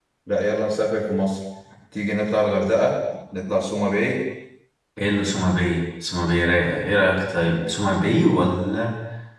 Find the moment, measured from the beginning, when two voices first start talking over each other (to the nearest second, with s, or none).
none